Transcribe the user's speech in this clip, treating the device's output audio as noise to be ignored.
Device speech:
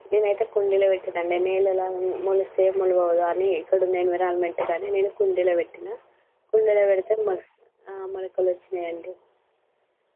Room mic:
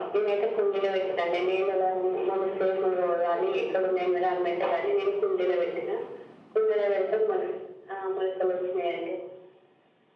none

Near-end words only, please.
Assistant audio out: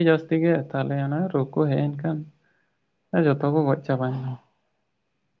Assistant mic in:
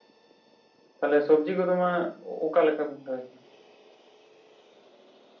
ᱛᱟᱦᱚᱞᱮ ᱥᱚᱵᱽᱡᱤ ᱠᱚᱫᱚ ᱢᱟ ᱚᱠᱟ ᱞᱮᱠᱟ ᱵᱤᱱ ᱨᱚᱦᱚᱭ

